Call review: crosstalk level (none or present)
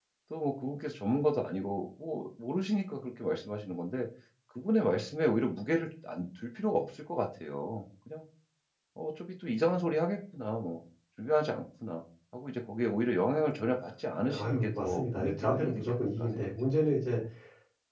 present